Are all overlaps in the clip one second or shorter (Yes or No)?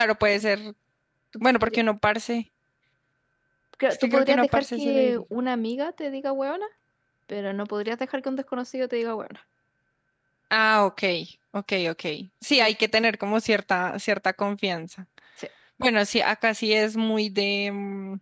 No